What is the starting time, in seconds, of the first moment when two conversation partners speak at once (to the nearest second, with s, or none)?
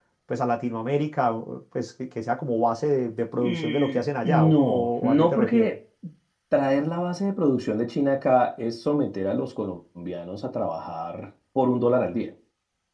3 s